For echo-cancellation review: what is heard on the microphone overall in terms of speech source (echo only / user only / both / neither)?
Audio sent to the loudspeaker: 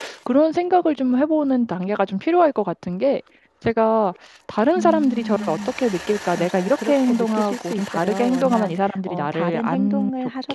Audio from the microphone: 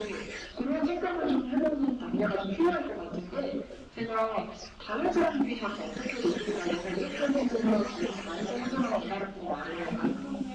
echo only